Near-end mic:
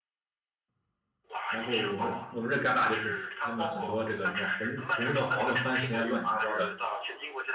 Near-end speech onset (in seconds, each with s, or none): 1.5 s